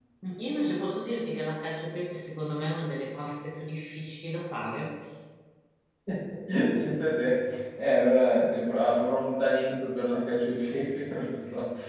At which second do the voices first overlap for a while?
none

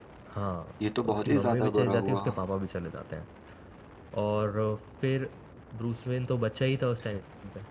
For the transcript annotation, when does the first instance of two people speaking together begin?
1.1 s

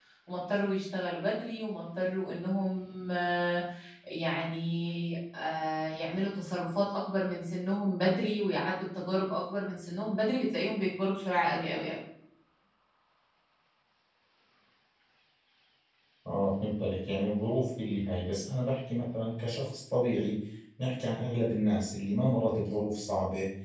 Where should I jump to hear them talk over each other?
none

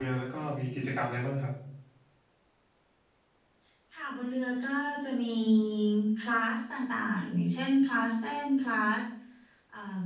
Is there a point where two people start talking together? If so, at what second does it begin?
none

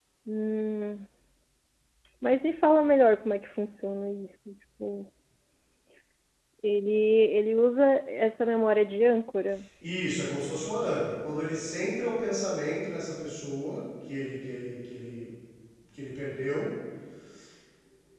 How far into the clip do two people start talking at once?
none

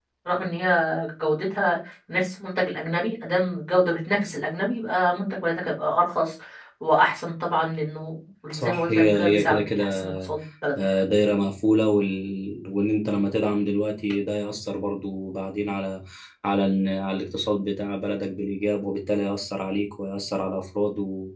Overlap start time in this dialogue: 8.5 s

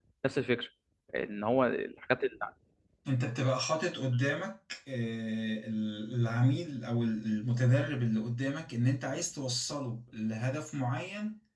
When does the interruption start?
none

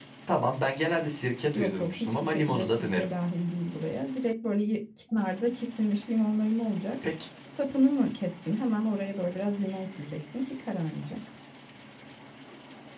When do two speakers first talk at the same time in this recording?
1.5 s

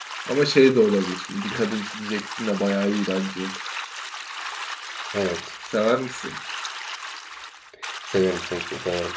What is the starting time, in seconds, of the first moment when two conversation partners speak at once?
none

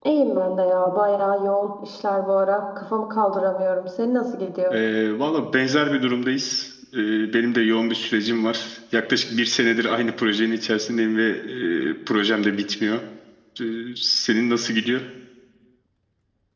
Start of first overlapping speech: none

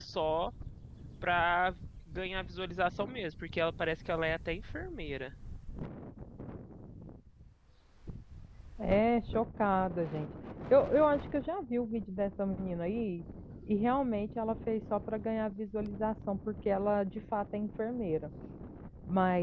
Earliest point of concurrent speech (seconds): none

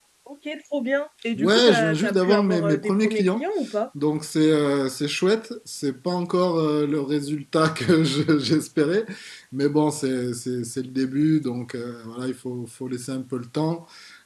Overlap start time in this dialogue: 1.4 s

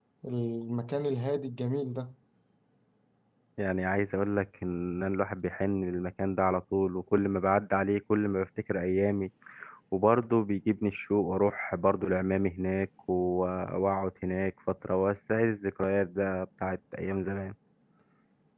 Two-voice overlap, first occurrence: none

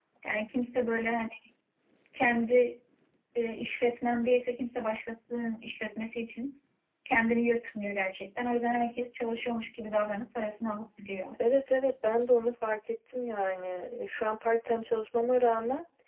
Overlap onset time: none

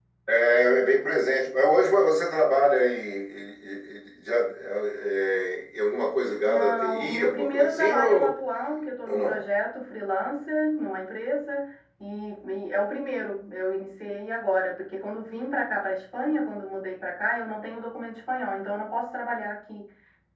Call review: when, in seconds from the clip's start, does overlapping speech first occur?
6.4 s

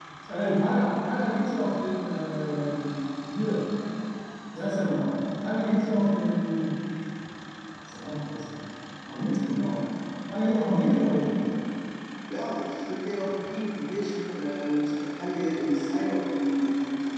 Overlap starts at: none

